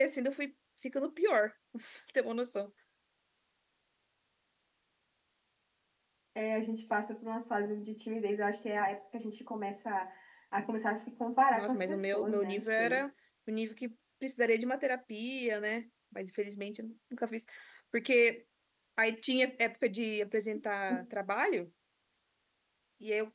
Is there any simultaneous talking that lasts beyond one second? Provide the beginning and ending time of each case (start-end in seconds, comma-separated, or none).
11.5-13.0